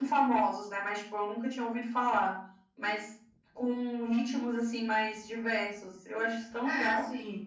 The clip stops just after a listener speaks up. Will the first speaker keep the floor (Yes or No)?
No